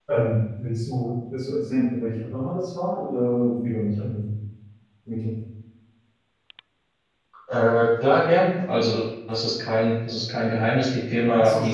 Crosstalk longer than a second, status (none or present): none